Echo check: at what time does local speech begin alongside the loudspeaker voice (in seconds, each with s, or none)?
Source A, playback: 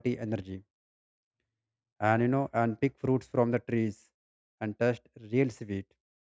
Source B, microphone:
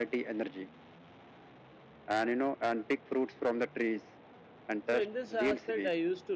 4.8 s